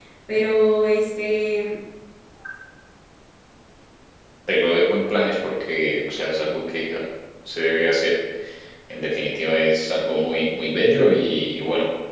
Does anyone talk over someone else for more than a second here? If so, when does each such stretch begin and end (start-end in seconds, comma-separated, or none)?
none